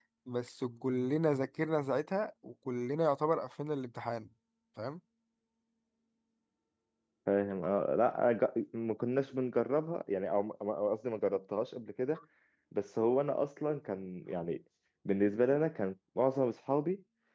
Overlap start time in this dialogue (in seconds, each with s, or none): none